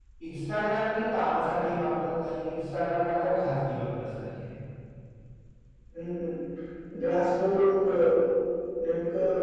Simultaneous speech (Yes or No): No